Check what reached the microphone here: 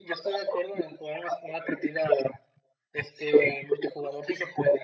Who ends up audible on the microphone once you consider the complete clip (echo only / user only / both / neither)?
echo only